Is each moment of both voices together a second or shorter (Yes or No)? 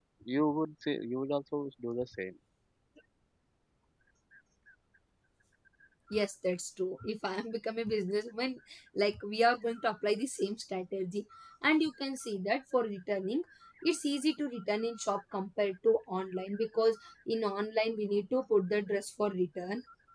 Yes